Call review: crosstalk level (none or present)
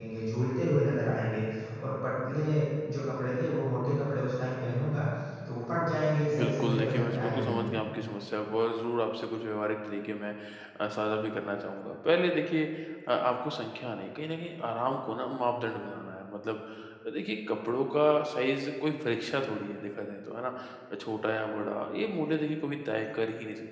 present